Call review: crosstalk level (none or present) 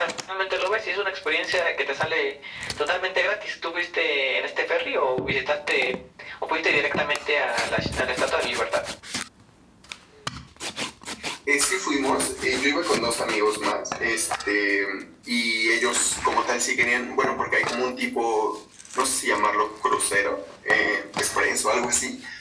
none